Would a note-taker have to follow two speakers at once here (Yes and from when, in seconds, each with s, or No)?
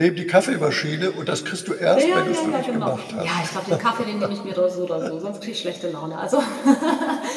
Yes, from 1.9 s